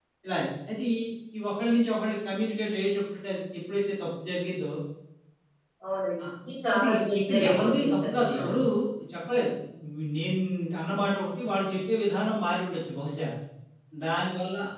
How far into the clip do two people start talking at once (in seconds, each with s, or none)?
6.7 s